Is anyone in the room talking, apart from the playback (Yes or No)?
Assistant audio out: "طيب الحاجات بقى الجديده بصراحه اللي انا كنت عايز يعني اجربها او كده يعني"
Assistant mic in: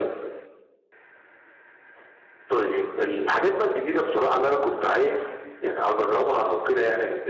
No